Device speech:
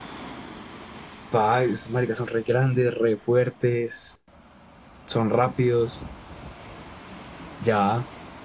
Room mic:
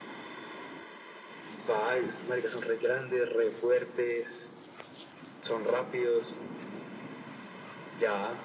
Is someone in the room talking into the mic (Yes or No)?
No